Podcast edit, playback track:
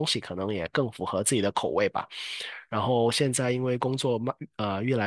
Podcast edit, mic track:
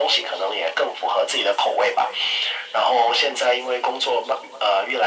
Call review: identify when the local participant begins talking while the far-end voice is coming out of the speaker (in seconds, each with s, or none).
none